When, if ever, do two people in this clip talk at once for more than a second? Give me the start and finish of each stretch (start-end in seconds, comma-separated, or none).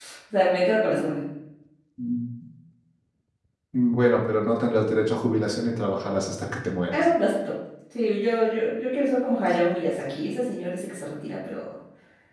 none